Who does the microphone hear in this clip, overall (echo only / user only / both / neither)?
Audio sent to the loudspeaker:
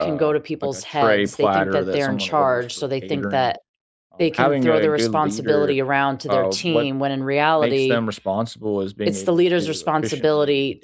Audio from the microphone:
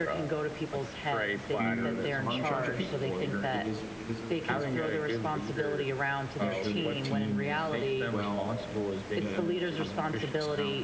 both